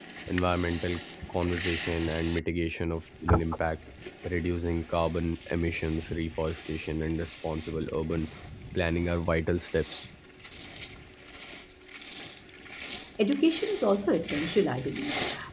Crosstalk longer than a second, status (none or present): none